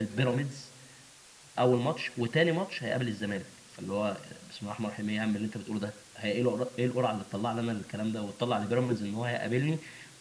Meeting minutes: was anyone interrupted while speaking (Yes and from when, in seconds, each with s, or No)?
No